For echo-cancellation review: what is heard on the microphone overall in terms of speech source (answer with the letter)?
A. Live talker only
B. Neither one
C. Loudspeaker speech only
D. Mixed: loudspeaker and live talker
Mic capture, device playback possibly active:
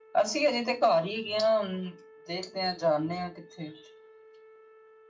A